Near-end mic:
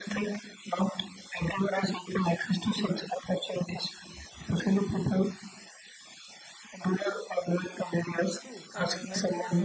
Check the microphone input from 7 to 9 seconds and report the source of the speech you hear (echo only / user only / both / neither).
both